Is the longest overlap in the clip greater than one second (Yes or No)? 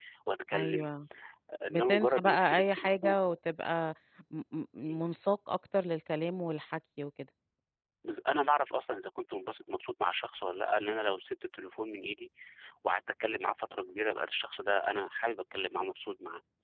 Yes